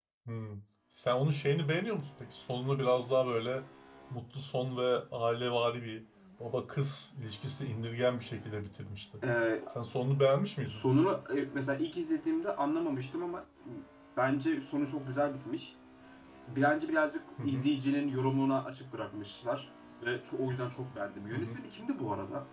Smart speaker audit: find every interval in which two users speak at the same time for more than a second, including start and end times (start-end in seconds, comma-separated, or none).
none